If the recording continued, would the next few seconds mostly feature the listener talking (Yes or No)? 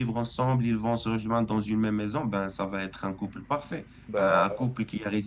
No